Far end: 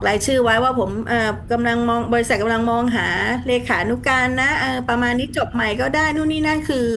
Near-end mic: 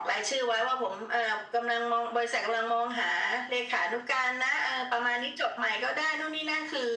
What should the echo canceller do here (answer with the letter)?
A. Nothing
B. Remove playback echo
B